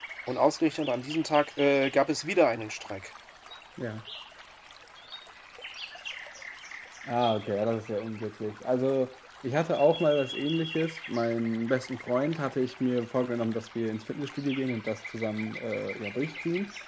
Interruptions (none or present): none